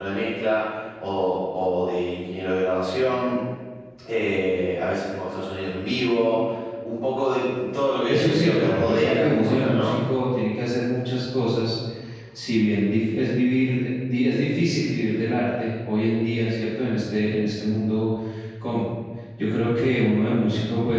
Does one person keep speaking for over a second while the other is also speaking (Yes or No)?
Yes